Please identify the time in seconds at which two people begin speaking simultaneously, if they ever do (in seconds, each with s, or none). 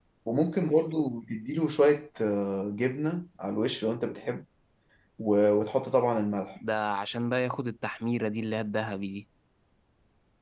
none